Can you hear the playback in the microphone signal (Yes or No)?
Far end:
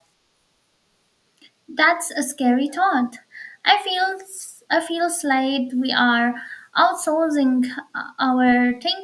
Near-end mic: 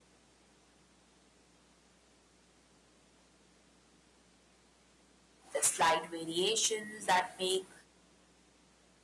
No